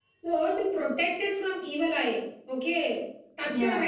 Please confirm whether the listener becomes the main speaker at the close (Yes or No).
No